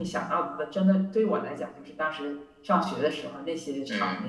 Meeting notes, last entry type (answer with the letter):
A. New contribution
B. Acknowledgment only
A